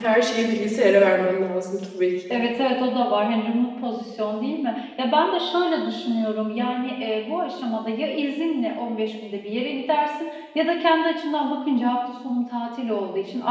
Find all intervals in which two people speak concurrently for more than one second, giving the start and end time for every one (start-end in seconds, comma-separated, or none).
none